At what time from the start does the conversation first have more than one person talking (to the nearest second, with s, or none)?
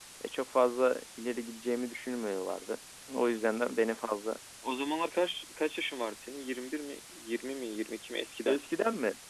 none